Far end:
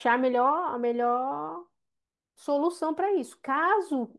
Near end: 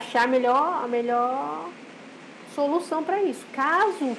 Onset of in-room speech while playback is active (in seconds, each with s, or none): none